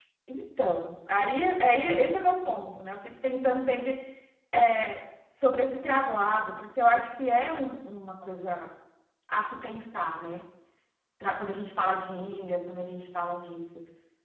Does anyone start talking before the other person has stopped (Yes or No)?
No